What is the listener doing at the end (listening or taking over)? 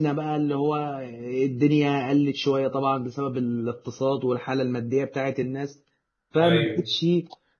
listening